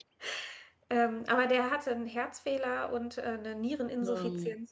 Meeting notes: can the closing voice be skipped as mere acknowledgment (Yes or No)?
Yes